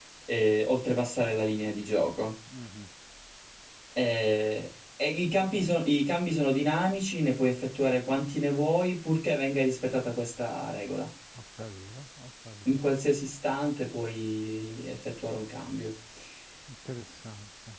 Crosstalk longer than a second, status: none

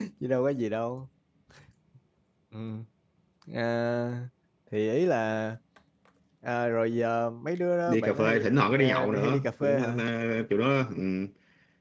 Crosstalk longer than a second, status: present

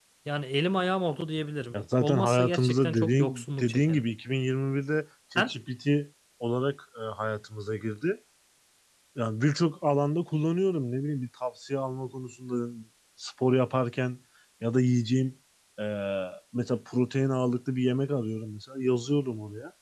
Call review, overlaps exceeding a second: present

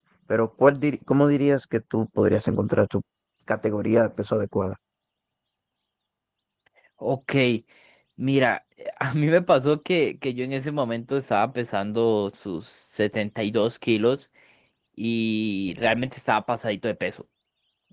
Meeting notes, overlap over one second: none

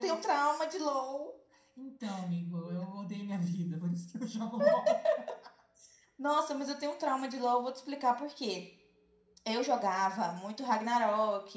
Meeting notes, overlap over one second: none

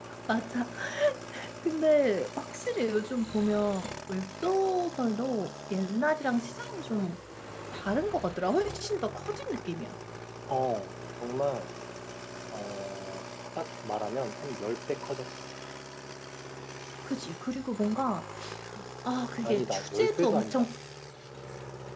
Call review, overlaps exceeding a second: present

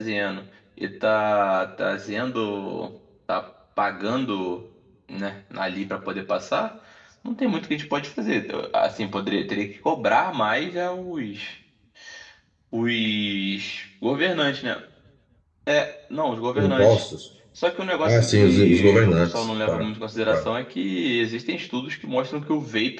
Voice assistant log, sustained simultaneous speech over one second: present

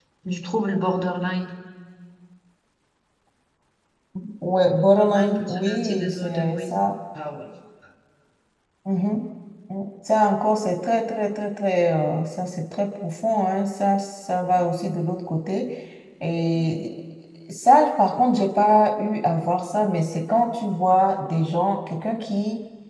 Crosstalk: present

